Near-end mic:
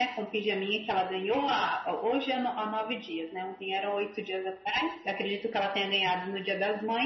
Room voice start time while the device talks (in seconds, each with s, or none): none